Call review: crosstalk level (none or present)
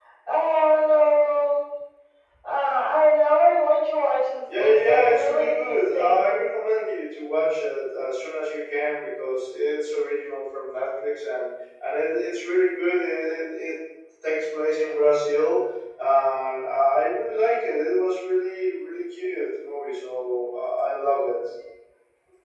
present